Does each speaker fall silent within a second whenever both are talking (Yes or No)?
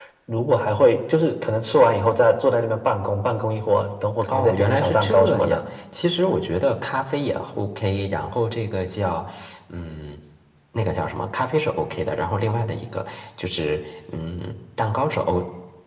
No